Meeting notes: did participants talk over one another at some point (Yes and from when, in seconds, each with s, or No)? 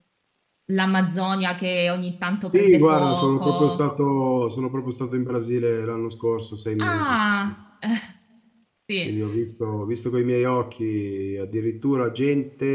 Yes, from 2.5 s